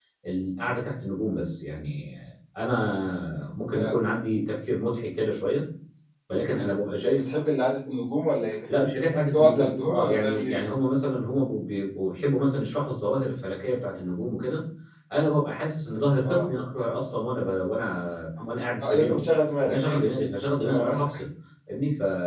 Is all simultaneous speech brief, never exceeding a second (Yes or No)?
No